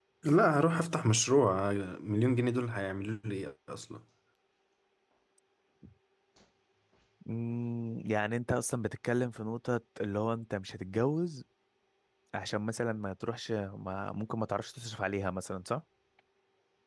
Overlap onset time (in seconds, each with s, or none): none